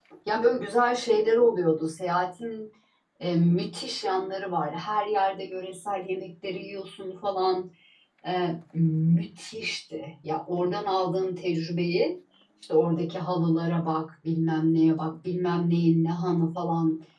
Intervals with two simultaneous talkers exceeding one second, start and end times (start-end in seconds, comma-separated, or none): none